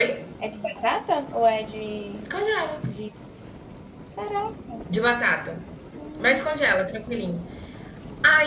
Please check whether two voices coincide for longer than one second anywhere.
No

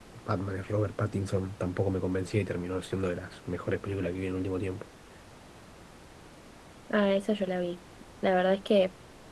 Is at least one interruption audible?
No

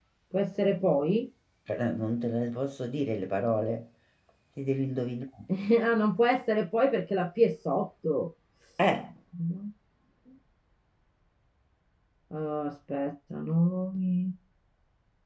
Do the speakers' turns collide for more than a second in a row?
No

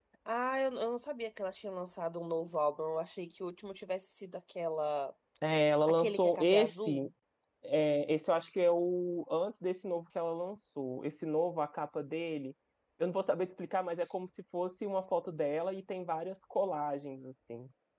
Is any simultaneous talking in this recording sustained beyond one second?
Yes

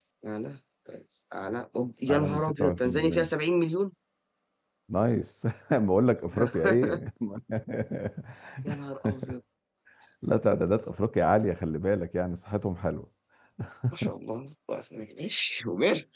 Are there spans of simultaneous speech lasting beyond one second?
Yes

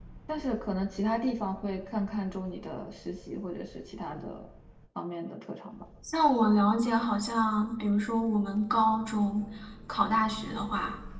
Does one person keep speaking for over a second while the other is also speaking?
No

